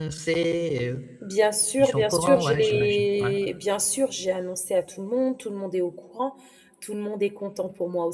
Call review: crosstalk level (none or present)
present